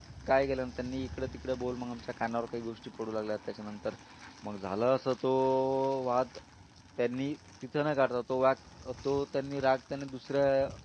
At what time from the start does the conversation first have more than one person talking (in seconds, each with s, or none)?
none